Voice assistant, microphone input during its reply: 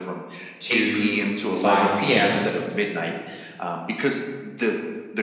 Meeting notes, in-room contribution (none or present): present